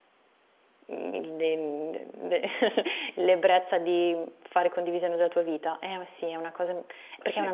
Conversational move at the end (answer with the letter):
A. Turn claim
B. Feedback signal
A